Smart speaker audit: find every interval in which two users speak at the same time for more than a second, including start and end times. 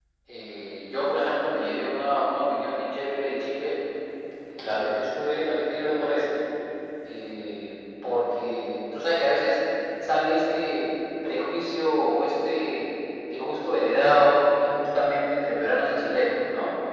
none

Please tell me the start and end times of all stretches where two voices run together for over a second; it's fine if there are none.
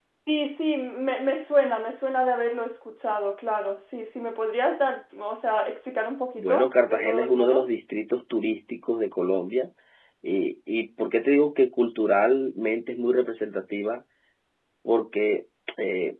6.4-7.7

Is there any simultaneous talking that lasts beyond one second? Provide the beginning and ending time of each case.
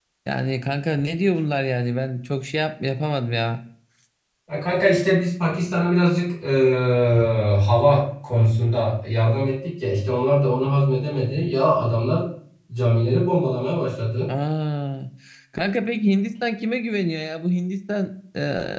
none

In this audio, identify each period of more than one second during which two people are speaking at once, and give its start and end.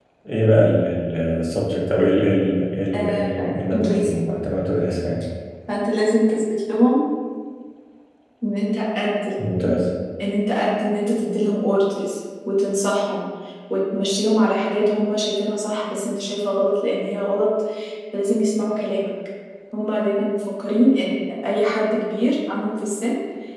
2.9-4.2

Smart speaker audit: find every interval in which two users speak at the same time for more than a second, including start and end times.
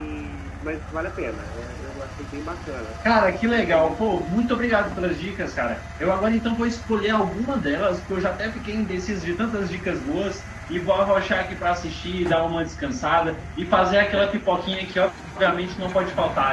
3.0-4.3

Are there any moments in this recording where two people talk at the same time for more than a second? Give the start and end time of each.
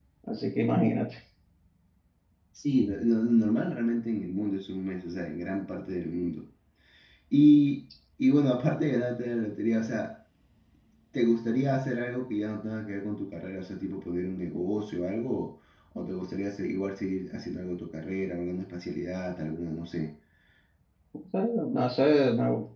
none

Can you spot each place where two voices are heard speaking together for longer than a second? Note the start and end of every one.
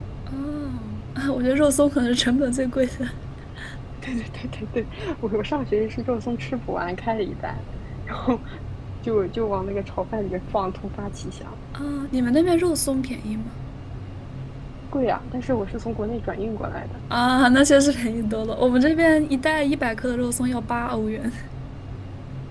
none

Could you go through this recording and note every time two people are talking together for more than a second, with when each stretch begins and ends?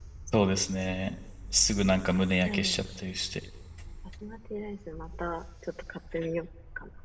none

